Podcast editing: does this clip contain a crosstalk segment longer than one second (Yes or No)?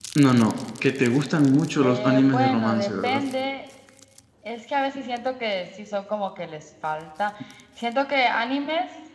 Yes